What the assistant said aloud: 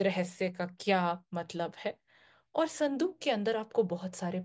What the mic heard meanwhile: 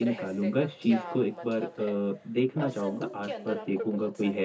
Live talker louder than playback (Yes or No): Yes